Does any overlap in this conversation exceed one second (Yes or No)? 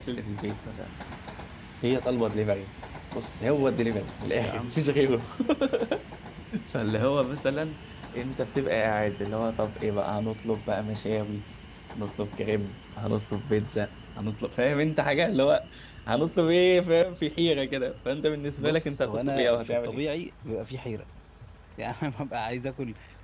Yes